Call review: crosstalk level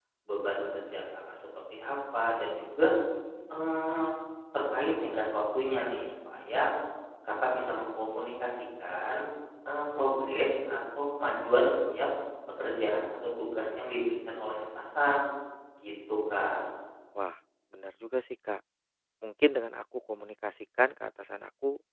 none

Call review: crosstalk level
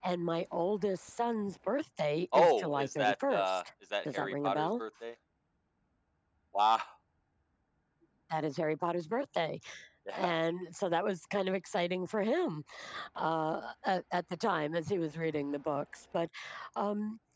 present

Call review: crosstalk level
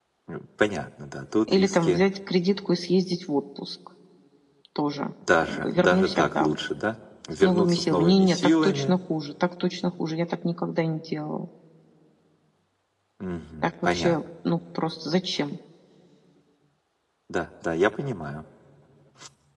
present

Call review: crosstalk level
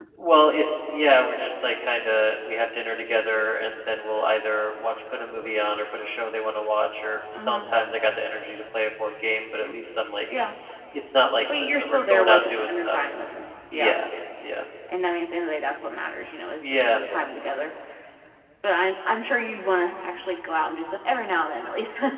present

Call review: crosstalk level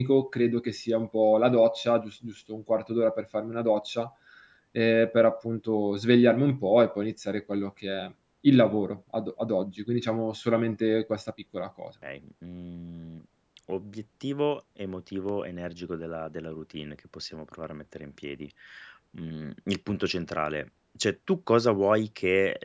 none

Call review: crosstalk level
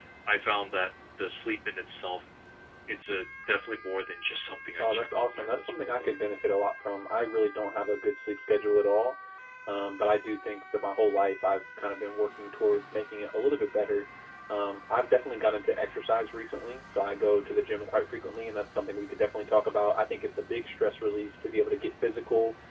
present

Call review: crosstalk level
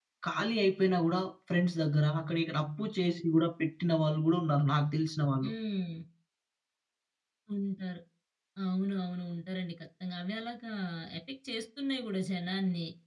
none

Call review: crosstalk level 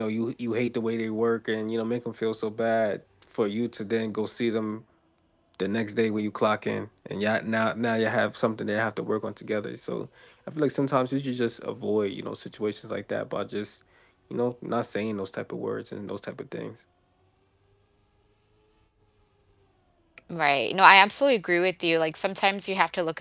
none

